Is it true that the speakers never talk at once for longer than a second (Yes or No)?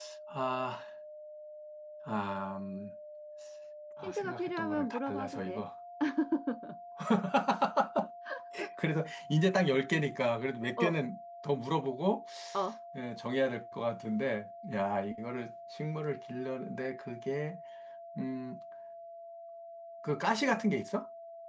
No